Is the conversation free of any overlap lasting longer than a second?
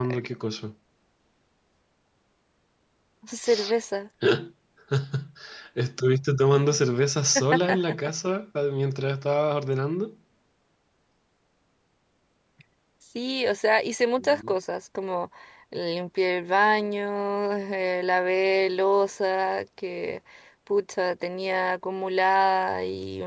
Yes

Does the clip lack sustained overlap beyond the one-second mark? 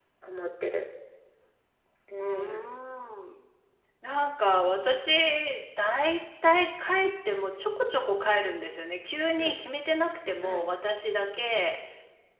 Yes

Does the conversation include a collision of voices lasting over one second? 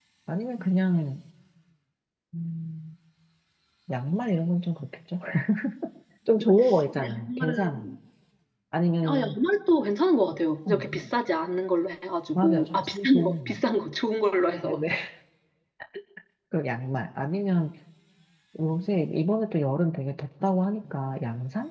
Yes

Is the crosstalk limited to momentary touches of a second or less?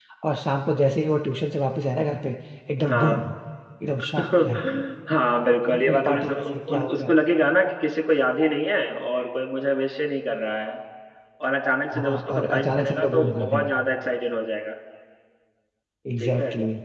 No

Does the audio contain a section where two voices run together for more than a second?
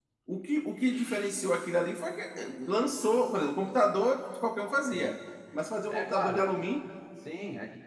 No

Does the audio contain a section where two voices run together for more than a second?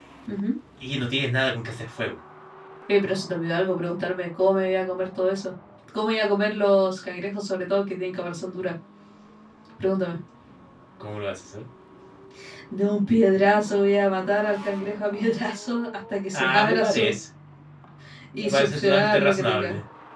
Yes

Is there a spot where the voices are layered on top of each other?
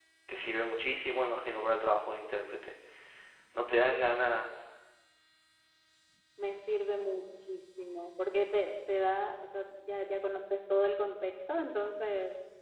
No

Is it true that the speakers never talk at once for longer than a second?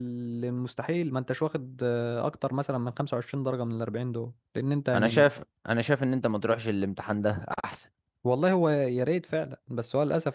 Yes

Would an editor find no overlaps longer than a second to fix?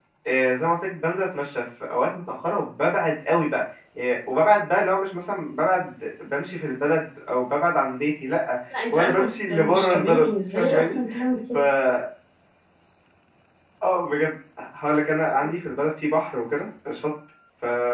No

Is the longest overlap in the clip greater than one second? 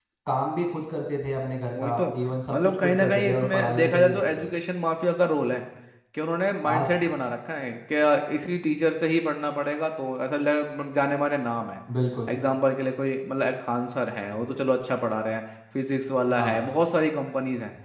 Yes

